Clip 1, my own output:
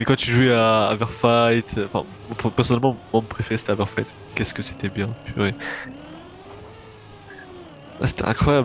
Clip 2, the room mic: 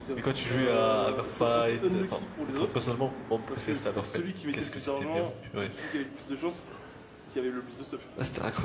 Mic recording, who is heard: both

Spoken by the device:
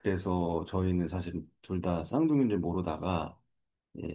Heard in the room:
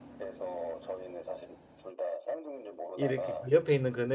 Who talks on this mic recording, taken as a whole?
both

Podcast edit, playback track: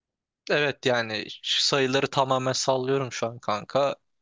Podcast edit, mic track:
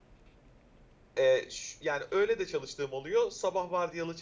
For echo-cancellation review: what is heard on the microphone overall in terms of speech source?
user only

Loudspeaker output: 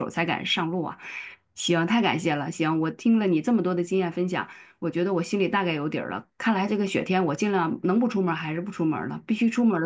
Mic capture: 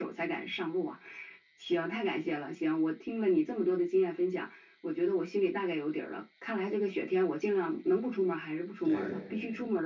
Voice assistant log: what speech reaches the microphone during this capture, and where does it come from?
both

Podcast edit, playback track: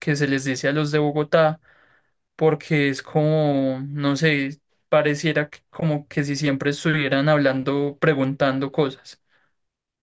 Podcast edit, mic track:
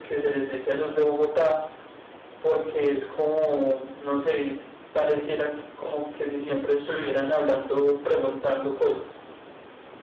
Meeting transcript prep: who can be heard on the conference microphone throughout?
echo only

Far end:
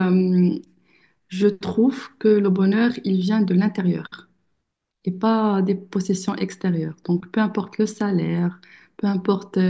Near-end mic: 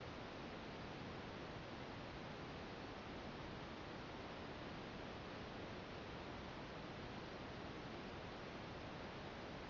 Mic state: neither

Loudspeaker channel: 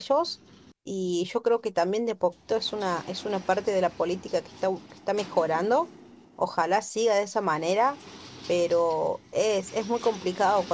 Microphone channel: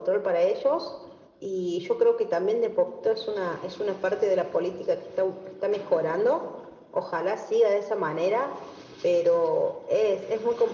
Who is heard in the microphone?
echo only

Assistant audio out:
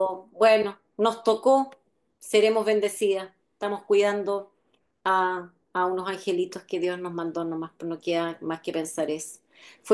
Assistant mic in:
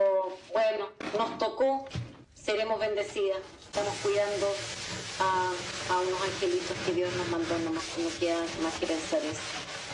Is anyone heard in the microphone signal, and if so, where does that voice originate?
echo only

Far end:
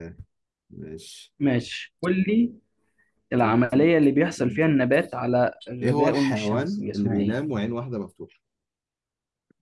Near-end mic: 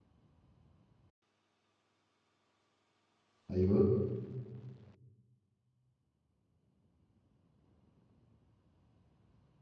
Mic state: user only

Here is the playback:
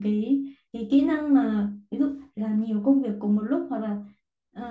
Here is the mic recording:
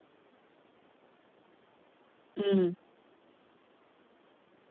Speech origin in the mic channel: user only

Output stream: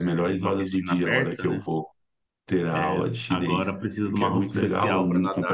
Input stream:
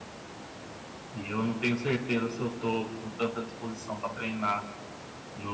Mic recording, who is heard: user only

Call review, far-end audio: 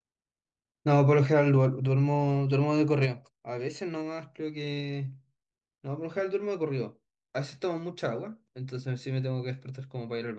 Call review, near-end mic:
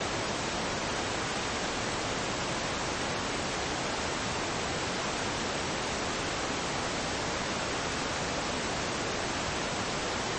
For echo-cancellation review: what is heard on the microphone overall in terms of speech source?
neither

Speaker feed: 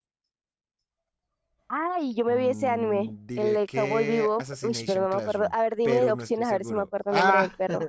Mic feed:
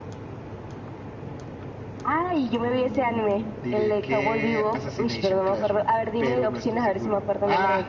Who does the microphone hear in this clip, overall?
echo only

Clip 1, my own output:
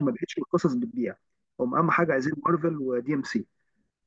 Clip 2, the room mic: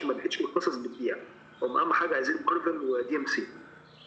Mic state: echo only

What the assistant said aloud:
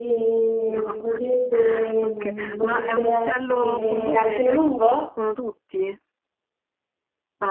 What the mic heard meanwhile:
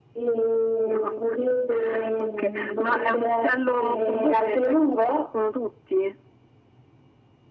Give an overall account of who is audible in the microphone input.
echo only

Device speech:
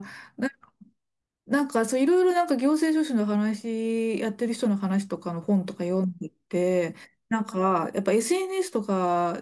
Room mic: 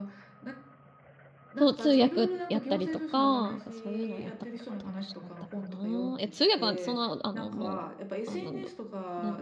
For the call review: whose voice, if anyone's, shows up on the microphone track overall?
both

